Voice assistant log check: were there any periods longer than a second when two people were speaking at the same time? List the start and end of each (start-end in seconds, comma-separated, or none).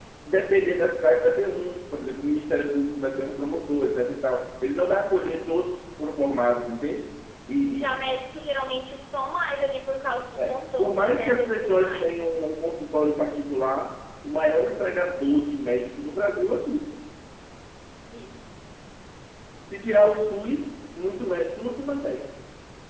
10.4-12.1